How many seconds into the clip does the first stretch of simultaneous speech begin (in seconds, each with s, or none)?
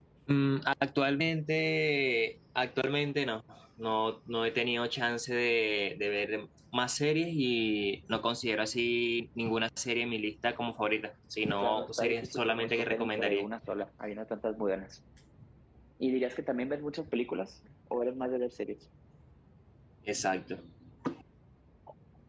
11.5 s